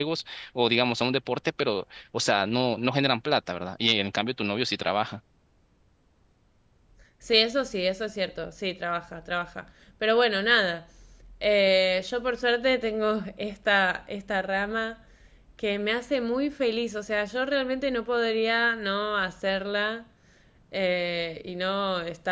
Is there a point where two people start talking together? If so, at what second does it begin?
none

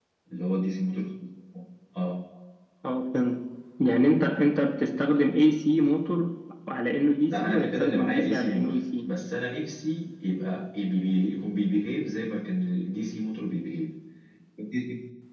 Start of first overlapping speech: 7.3 s

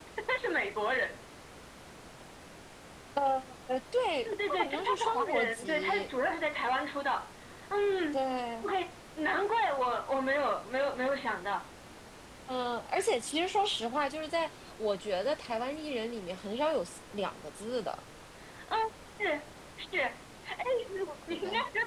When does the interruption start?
4.2 s

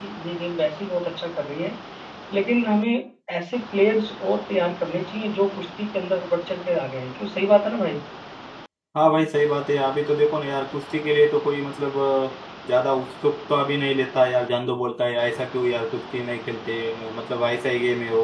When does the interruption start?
none

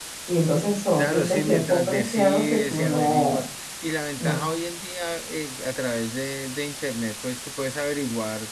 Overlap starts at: 1.0 s

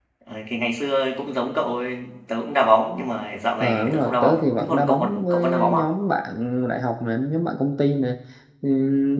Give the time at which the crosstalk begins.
3.6 s

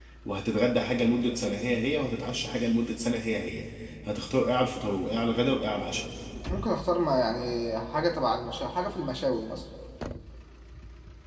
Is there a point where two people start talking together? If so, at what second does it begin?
none

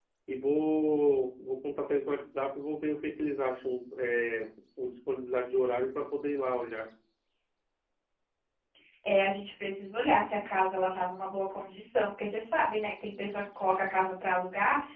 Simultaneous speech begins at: none

